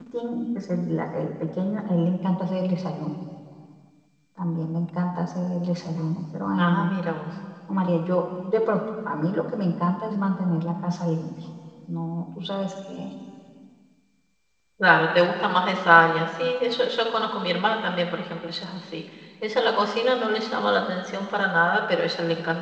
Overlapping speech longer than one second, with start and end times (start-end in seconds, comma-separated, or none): none